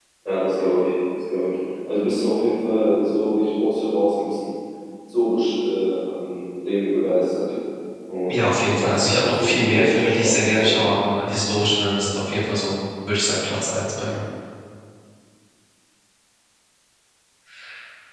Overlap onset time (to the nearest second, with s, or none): 8 s